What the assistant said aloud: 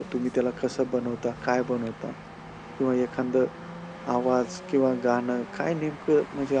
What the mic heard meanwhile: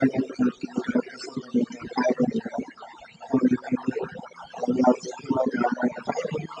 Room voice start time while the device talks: none

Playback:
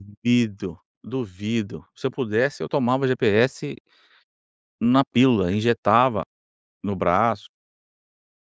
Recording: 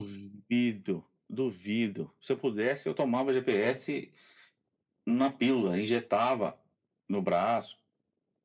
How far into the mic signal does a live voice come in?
none

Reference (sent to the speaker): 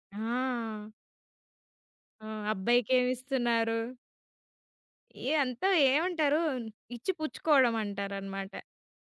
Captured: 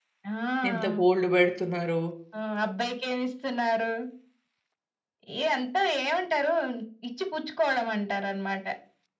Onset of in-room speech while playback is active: 1 s

